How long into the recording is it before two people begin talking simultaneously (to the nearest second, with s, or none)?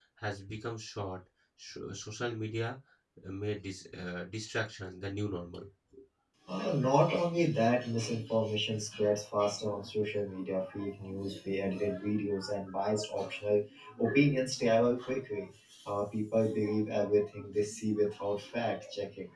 none